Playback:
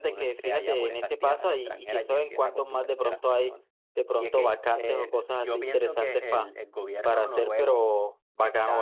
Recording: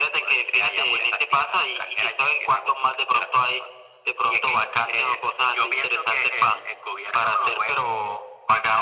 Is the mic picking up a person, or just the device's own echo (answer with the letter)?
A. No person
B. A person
A